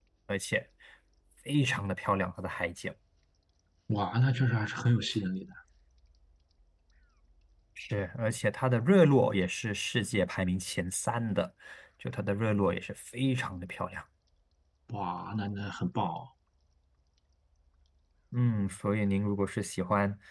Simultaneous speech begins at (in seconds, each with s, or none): none